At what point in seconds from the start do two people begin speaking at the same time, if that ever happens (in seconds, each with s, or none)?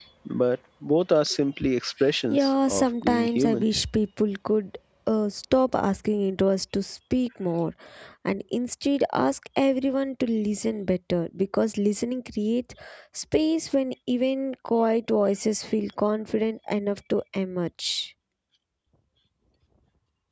2.3 s